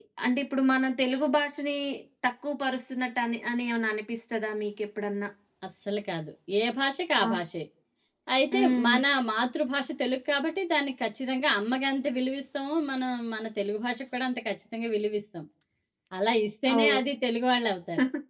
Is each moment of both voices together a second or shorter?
Yes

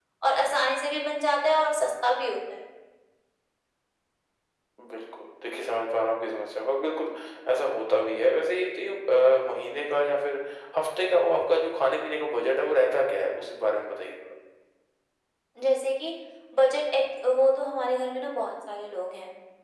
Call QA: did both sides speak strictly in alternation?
Yes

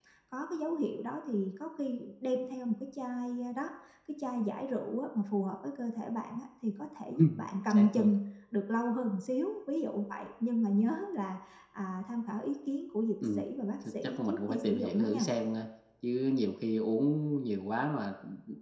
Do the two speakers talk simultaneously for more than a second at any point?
Yes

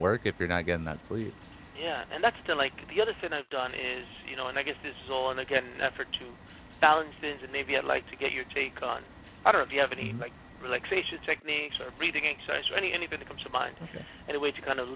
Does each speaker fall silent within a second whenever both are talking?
Yes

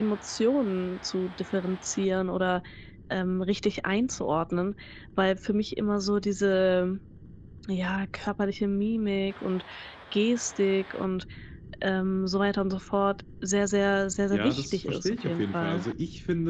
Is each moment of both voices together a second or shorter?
No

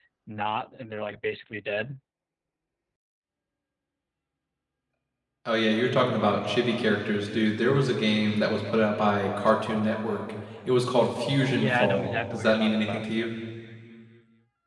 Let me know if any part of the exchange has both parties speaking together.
Yes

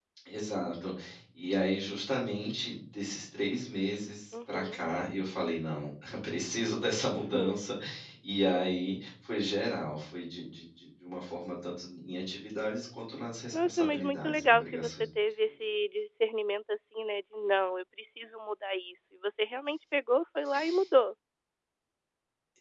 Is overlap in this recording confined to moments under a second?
No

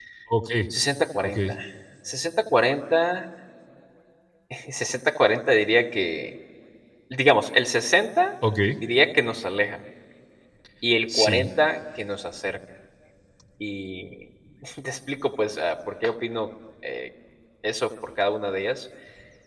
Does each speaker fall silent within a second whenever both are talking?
Yes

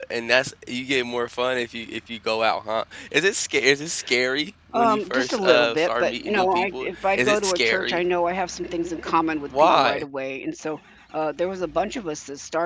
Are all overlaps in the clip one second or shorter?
No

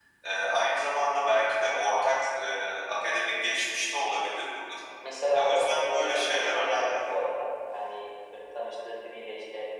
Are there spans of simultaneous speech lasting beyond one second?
Yes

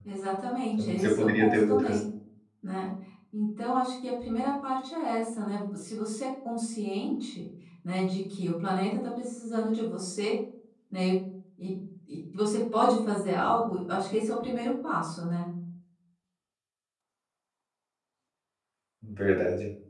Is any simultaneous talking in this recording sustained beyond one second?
Yes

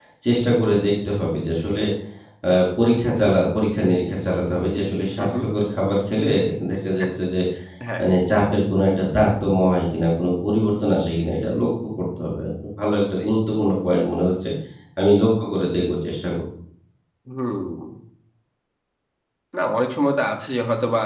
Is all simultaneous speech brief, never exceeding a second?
Yes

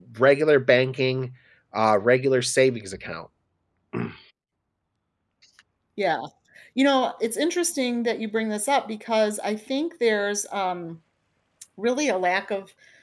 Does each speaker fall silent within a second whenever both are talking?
Yes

